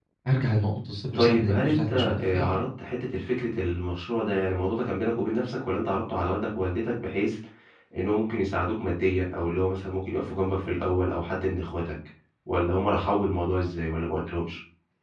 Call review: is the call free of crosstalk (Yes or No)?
No